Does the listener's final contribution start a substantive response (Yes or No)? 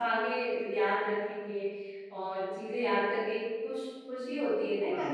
Yes